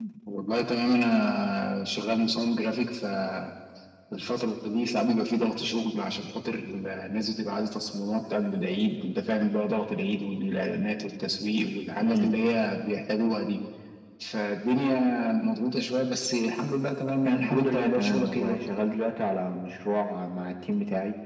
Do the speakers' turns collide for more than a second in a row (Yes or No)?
Yes